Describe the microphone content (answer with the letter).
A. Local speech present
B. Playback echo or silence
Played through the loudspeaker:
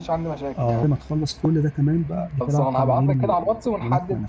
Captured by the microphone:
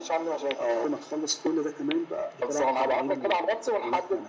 B